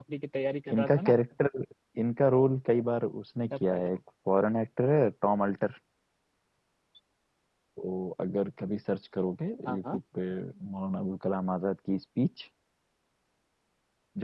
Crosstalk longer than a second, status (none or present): none